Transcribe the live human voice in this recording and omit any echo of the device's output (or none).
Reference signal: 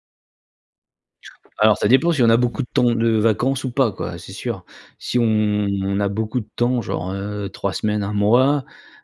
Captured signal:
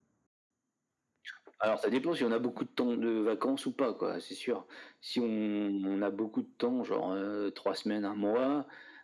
none